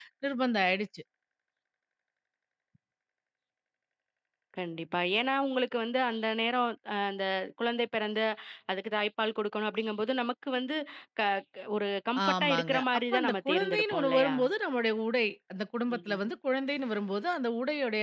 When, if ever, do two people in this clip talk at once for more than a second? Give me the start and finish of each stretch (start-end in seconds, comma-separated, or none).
12.2-14.3